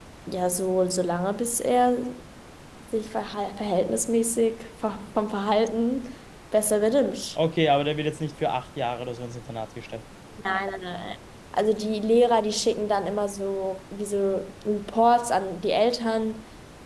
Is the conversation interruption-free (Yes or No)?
Yes